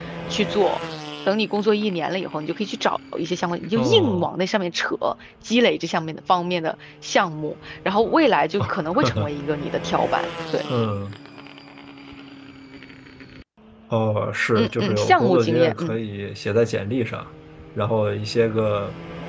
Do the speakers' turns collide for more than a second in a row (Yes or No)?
Yes